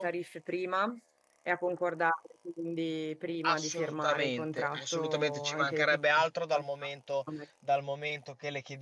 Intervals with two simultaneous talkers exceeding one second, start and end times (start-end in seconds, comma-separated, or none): 3.5-6.0